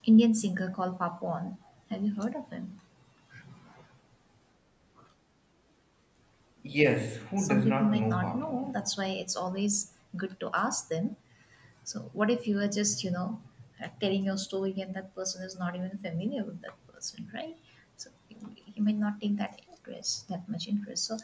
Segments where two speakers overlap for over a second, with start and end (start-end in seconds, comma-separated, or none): 7.4-8.7